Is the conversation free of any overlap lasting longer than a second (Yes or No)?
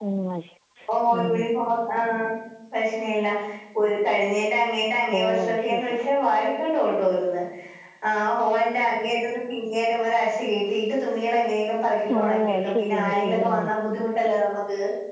No